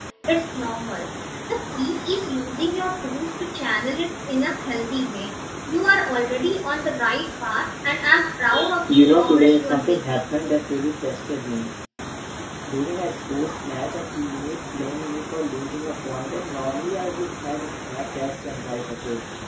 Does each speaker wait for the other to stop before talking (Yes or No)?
No